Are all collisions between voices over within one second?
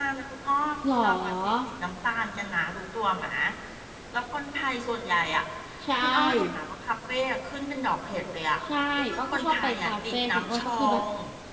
No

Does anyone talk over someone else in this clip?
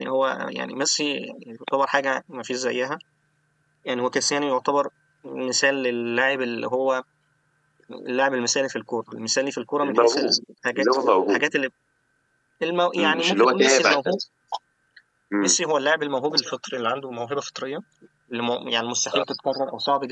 Yes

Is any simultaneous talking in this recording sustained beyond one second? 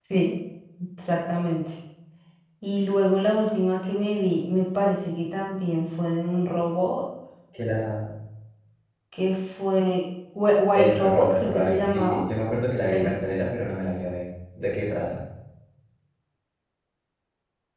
Yes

